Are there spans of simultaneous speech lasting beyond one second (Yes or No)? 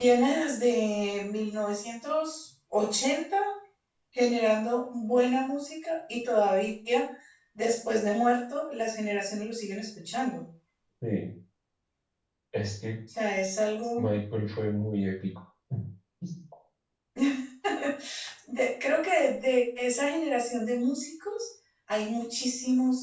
No